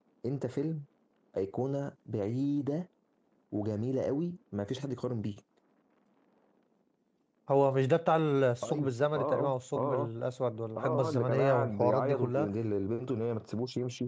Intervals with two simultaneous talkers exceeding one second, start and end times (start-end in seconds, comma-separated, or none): 8.6-10.0, 10.8-12.5